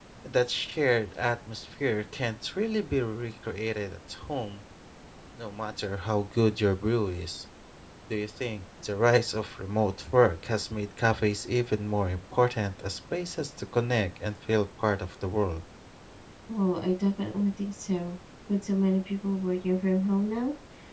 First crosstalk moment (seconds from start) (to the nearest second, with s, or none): none